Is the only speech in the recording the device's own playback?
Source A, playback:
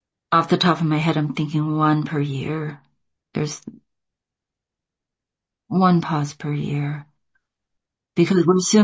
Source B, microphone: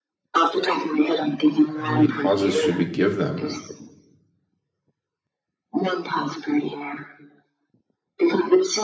No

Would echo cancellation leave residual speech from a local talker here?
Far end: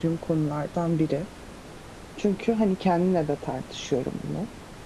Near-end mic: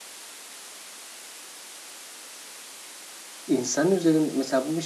Yes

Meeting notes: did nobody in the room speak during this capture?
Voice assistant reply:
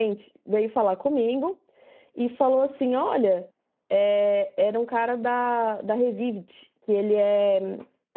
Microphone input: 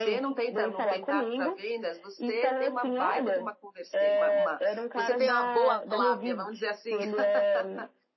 No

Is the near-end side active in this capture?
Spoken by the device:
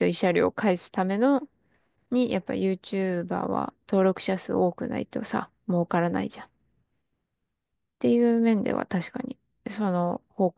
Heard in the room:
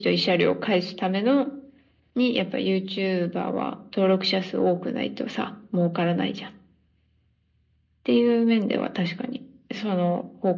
No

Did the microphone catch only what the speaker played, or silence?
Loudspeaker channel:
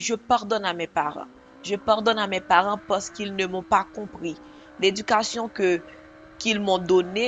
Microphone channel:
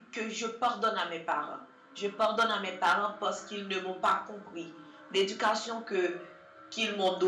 Yes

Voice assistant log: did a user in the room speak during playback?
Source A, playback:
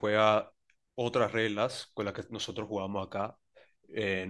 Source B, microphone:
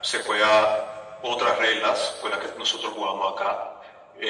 No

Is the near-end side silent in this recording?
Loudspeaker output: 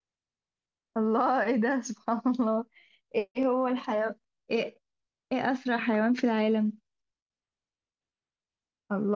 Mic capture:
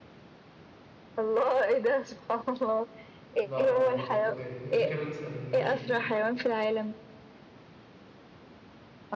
No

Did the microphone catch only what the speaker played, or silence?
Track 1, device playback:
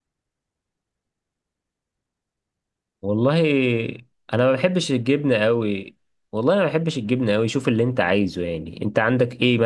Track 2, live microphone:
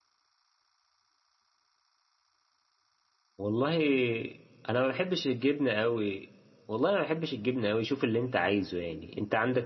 Yes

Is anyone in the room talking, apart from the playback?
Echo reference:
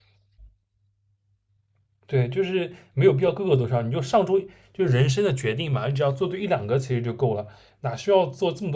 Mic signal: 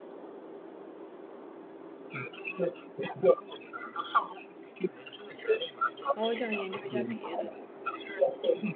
Yes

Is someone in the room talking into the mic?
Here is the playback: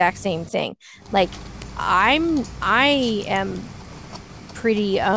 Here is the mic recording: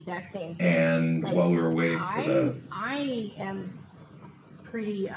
Yes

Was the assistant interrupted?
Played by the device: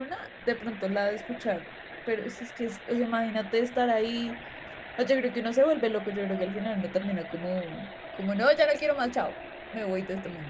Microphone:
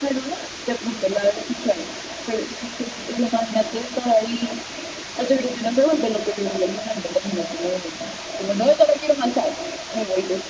No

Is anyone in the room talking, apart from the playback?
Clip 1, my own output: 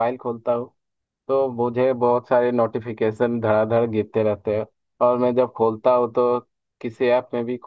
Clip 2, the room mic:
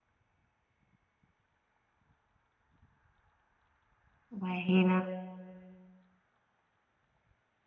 Yes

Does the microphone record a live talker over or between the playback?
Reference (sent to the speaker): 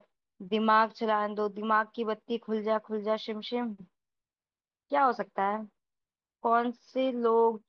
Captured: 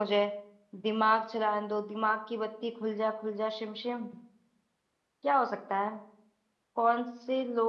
No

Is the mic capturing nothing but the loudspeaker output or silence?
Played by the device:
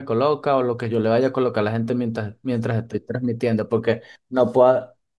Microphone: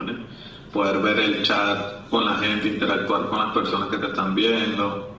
No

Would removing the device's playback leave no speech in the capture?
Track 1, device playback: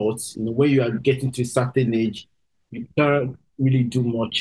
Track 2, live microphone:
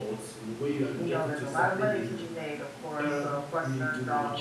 No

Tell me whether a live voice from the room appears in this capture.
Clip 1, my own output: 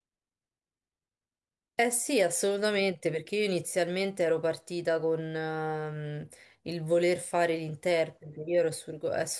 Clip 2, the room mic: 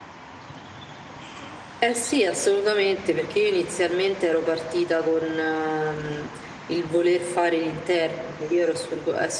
No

